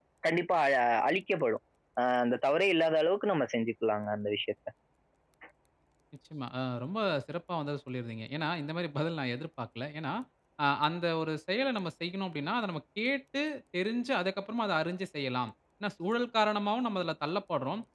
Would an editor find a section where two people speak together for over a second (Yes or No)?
No